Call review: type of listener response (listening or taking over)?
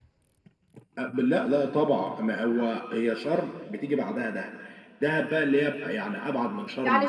taking over